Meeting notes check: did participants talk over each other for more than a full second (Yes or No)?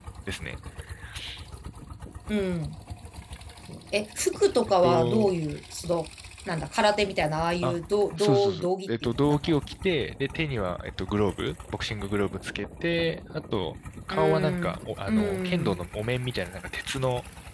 Yes